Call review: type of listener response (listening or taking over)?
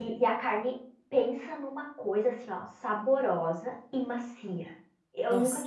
listening